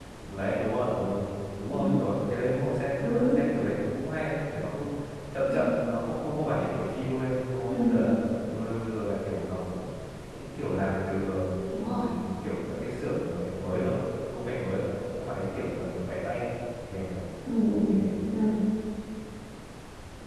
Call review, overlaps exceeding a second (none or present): none